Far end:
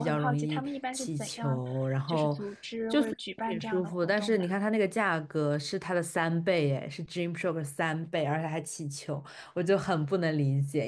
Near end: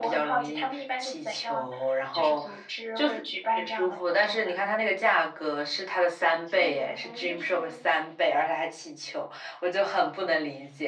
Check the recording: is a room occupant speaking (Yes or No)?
Yes